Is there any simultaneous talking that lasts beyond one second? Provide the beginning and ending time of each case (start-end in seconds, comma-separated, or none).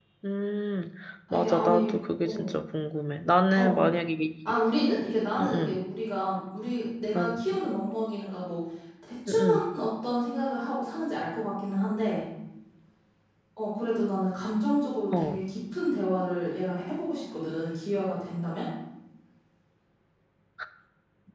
1.3-2.5